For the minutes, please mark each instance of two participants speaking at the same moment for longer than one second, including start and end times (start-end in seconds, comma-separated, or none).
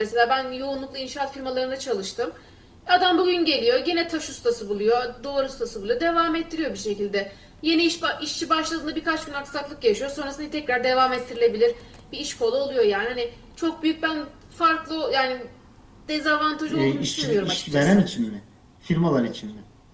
16.7-18.0